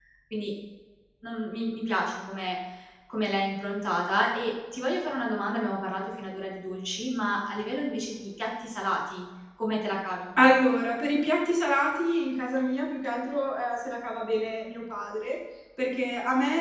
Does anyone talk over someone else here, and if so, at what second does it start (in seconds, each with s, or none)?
none